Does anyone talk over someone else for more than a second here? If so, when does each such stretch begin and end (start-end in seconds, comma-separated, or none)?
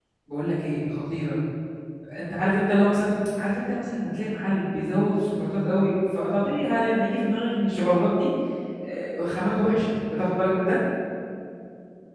none